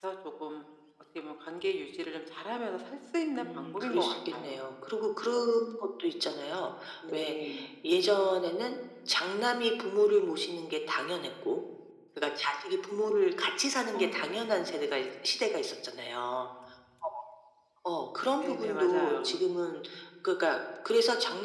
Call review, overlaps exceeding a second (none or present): present